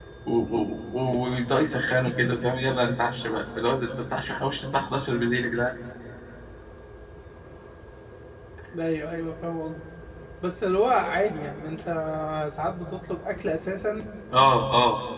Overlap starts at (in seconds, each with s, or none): none